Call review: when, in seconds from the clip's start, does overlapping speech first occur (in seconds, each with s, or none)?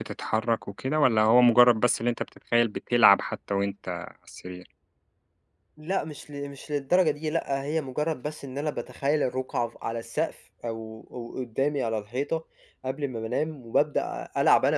none